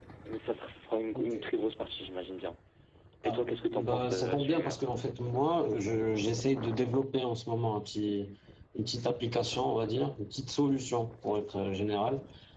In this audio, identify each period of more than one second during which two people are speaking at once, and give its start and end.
3.3-4.8

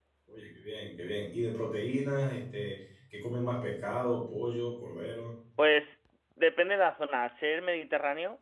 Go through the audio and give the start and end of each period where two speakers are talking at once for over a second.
none

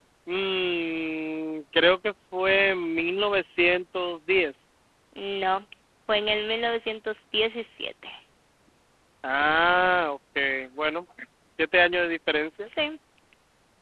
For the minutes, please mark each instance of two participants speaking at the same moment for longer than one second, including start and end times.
none

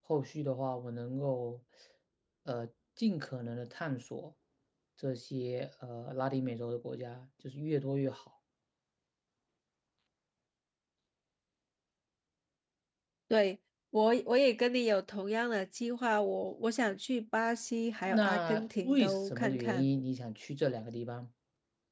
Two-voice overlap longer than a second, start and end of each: 18.1-19.9

